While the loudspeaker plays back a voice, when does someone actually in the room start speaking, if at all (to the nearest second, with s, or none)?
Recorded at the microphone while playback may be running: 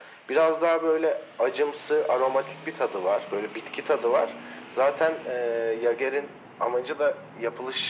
none